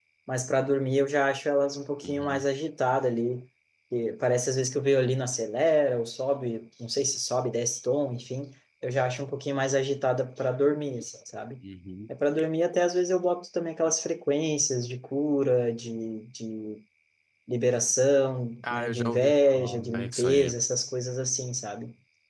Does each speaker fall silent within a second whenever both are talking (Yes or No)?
No